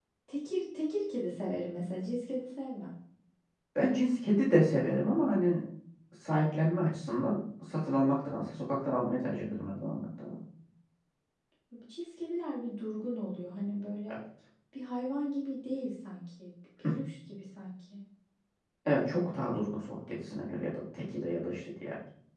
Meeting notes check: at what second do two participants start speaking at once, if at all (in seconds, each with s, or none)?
none